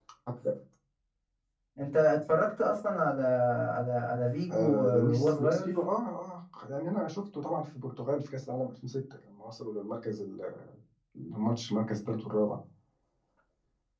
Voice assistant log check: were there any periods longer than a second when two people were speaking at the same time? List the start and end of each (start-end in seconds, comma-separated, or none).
4.5-5.7